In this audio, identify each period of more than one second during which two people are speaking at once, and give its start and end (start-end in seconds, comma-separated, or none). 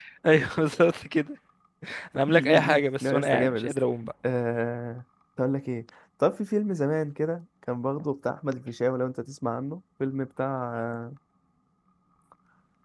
2.3-3.8